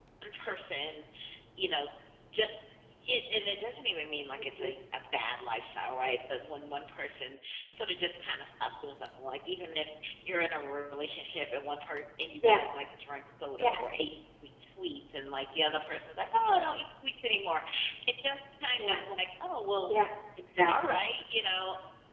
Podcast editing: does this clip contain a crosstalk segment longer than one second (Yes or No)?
No